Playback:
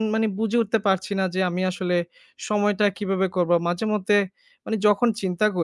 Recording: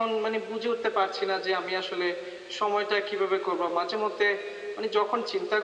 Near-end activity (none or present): none